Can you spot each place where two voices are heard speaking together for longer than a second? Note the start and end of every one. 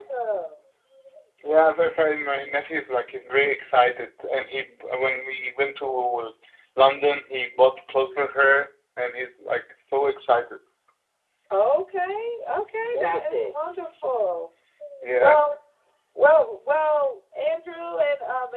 none

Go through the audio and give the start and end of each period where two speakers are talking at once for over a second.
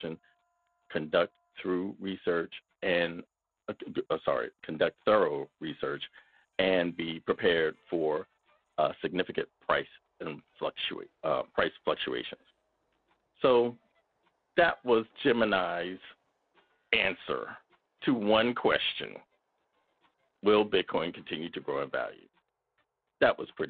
none

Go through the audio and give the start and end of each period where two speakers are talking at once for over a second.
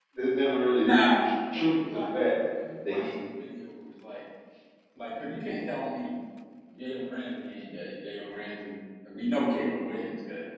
0.8-2.0

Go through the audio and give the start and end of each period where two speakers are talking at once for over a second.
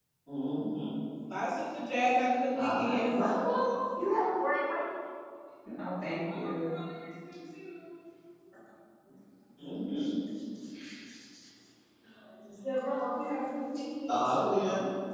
1.5-3.2

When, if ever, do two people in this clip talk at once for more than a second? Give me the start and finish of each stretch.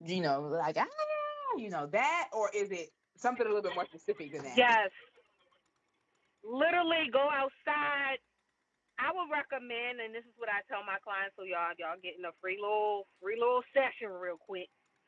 none

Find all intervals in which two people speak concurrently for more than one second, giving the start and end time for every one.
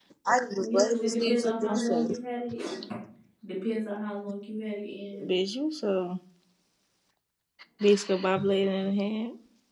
0.6-2.1

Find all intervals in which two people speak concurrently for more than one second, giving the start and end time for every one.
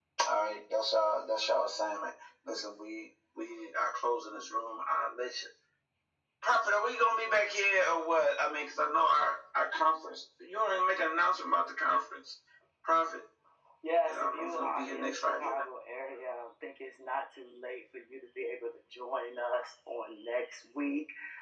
14.1-15.6

